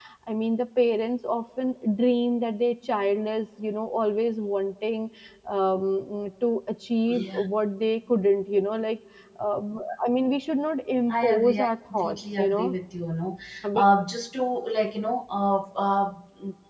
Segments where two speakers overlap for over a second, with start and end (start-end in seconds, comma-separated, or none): 11.1-12.7